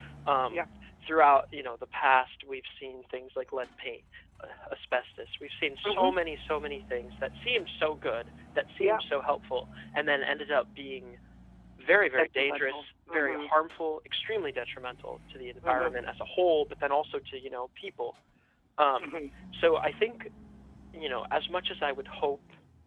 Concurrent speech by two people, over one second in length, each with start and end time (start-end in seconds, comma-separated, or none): 12.2-13.5